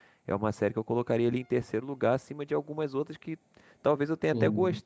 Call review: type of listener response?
listening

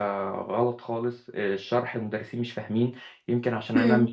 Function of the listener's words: listening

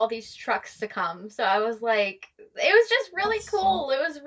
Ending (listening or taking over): listening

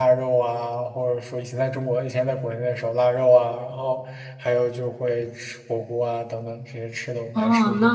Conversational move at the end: taking over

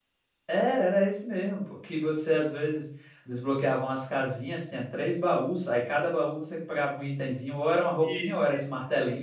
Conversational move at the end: listening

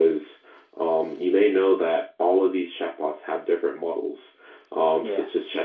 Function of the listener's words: listening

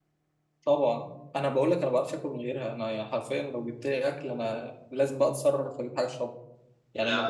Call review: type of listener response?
listening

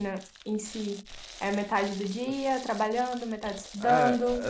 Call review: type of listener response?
taking over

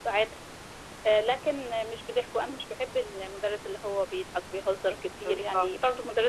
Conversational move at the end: listening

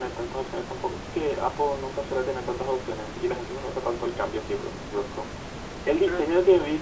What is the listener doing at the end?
listening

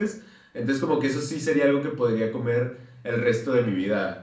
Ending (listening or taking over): taking over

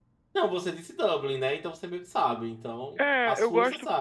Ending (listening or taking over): taking over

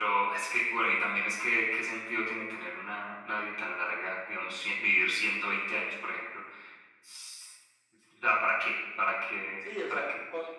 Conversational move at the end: taking over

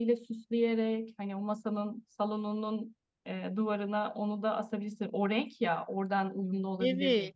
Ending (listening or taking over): taking over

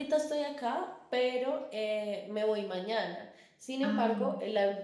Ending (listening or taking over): listening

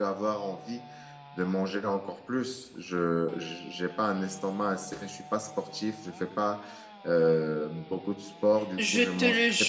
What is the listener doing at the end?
taking over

